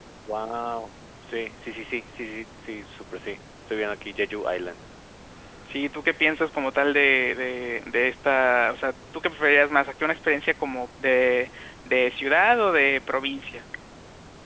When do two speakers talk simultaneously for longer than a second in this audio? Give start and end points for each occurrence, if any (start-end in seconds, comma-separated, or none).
none